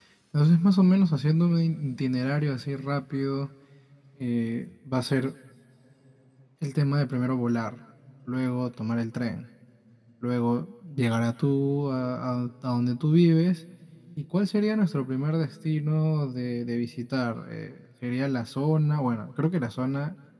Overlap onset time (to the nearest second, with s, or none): none